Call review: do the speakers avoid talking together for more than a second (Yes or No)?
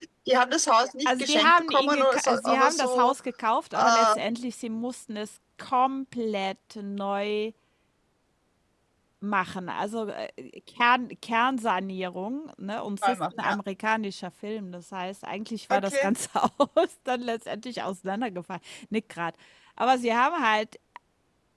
No